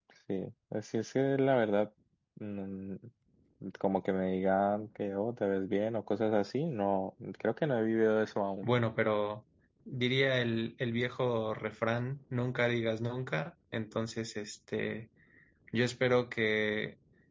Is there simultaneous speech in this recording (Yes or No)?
No